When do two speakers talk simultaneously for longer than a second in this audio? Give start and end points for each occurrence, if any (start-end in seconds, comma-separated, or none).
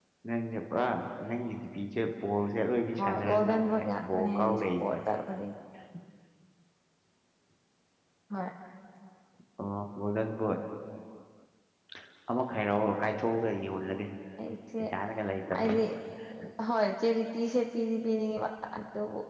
3.0-5.0